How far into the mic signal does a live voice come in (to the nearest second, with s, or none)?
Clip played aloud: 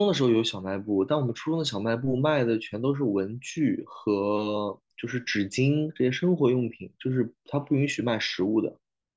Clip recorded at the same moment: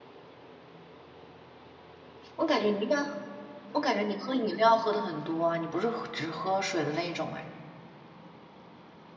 2 s